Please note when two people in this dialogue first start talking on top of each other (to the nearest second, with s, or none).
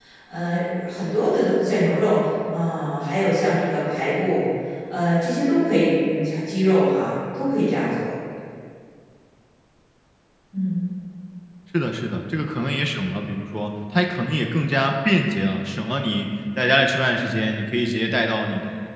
none